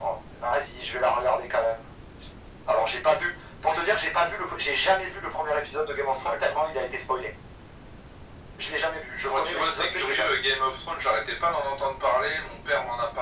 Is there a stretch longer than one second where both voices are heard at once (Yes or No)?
Yes